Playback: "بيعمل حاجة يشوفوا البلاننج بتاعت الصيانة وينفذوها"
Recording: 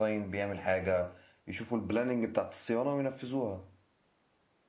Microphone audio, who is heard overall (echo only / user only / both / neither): echo only